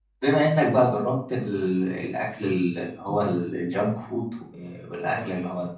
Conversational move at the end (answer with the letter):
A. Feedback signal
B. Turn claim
A